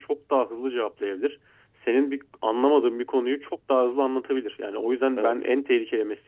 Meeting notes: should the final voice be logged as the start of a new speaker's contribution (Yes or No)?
No